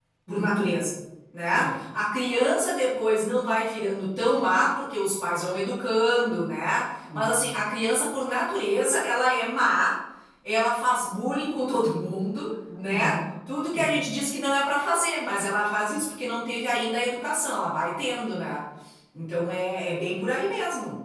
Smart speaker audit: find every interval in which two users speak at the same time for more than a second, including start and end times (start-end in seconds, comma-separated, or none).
none